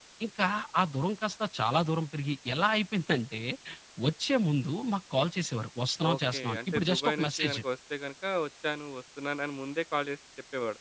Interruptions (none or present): present